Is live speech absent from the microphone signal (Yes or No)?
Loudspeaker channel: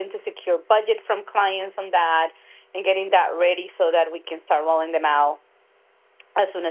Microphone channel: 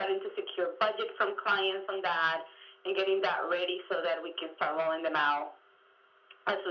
Yes